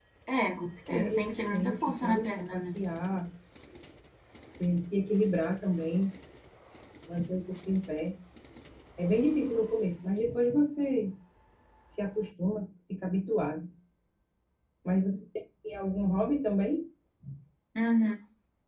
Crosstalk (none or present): present